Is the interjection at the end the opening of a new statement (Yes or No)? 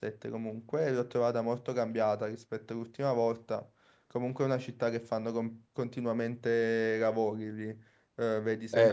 No